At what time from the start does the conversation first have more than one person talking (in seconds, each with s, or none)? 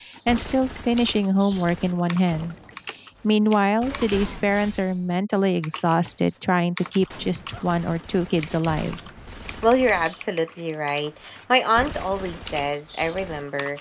none